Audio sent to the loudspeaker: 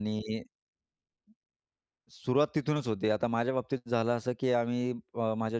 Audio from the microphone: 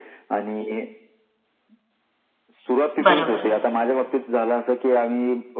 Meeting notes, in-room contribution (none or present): present